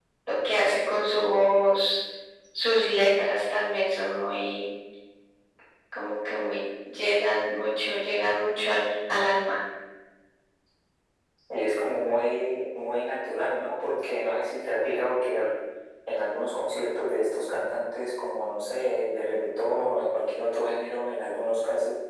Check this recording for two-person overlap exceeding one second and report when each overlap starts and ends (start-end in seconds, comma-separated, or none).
none